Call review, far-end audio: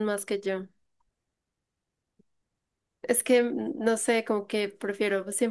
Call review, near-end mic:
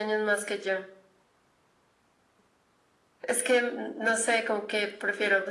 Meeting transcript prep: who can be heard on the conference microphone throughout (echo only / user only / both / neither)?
echo only